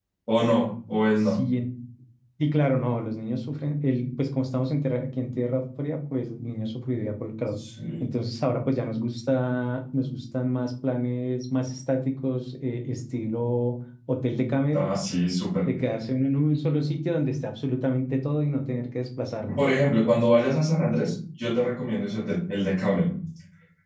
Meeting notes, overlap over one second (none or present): none